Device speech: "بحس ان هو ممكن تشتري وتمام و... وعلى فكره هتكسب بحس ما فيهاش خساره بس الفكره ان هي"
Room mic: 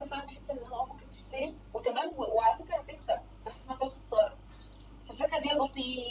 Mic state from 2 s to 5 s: echo only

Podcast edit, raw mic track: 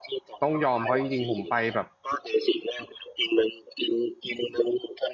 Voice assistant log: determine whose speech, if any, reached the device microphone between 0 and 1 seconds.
both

